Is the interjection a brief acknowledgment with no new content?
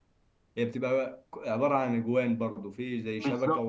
No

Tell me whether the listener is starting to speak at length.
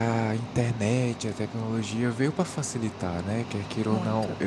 No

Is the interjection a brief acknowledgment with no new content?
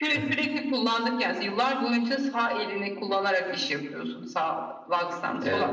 Yes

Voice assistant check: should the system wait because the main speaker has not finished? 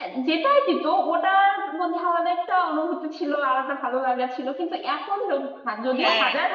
No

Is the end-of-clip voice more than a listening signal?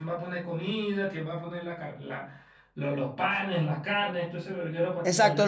Yes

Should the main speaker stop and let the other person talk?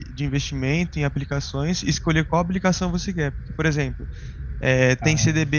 No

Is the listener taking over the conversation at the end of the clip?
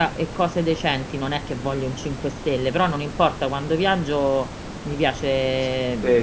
Yes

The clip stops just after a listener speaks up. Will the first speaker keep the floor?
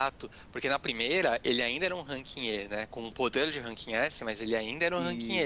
Yes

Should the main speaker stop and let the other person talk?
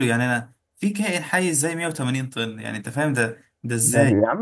Yes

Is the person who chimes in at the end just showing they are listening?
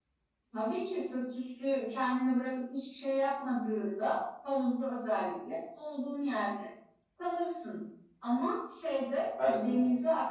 Yes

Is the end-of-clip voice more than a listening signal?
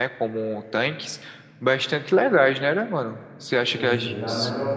Yes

